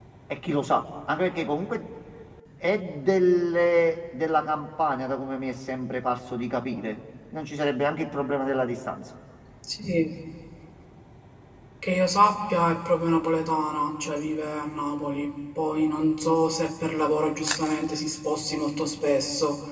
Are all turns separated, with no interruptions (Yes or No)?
Yes